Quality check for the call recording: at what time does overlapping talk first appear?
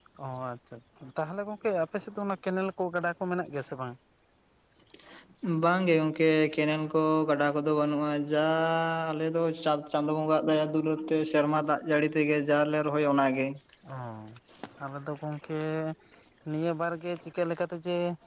none

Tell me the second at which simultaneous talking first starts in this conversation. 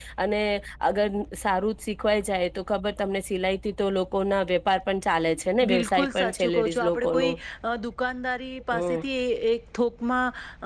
6 s

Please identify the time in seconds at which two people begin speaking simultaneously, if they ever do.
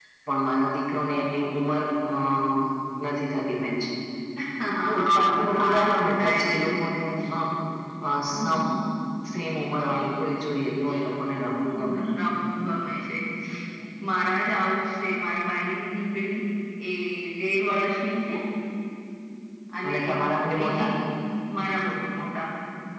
5 s

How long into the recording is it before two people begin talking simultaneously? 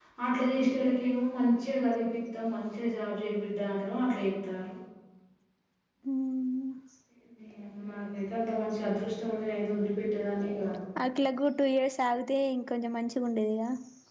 none

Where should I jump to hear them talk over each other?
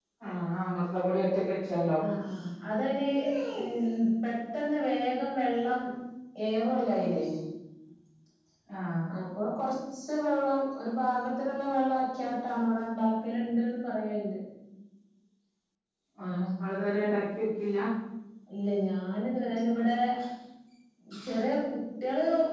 none

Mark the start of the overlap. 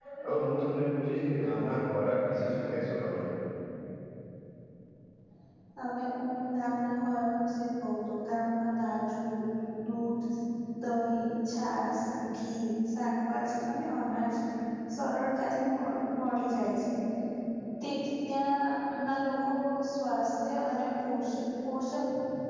none

